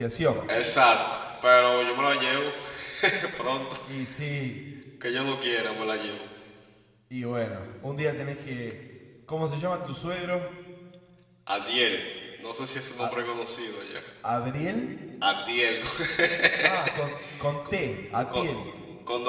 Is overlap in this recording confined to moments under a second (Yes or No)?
Yes